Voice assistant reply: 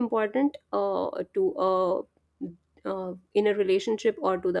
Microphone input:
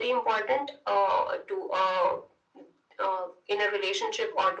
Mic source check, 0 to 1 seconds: echo only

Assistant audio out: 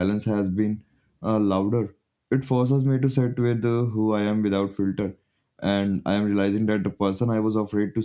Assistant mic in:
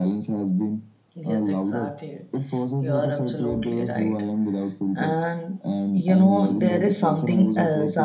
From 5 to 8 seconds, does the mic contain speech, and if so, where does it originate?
both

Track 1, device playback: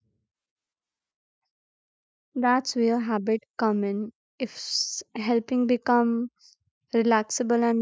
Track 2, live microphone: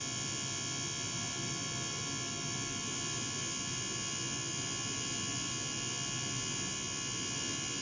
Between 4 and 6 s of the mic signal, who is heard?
neither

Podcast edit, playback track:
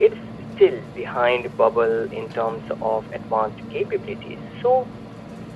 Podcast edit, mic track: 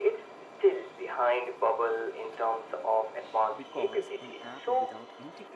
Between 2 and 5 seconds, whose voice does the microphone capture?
both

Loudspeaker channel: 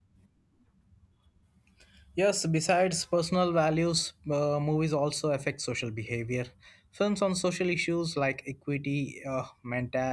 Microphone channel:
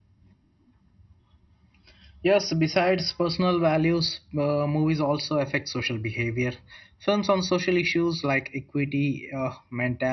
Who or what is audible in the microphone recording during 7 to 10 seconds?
echo only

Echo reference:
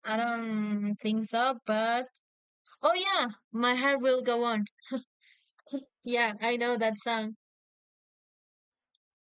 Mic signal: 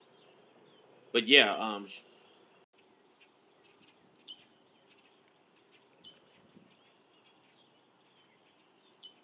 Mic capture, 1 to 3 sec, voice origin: user only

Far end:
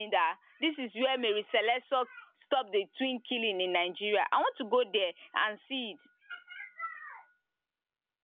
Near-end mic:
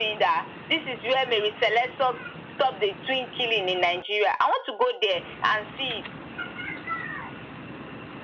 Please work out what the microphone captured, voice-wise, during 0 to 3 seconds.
echo only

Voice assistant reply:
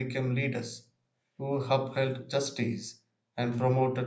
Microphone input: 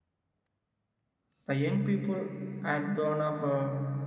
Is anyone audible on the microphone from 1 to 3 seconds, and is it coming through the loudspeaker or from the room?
user only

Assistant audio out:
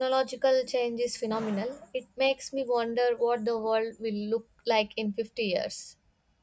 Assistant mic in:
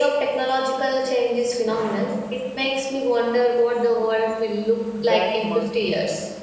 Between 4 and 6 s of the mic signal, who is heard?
both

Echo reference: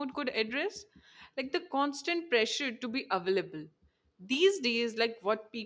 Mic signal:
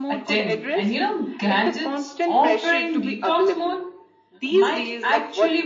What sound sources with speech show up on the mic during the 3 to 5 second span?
both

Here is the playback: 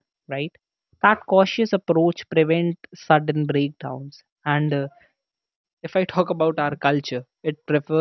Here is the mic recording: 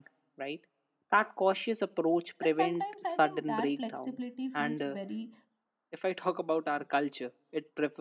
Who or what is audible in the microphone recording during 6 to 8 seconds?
echo only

